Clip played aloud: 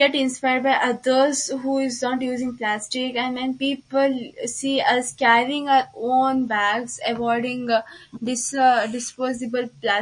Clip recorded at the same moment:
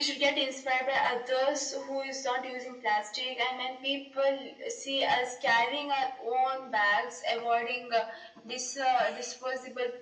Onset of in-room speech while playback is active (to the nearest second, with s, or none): none